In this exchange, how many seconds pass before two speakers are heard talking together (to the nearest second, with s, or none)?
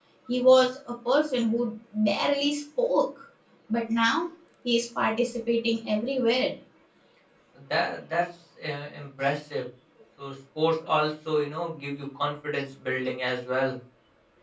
none